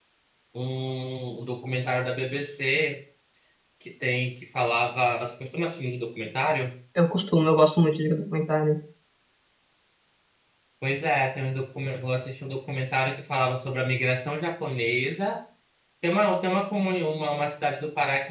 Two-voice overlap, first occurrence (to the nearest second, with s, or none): none